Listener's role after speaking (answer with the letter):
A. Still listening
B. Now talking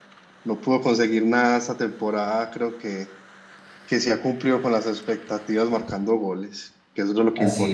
B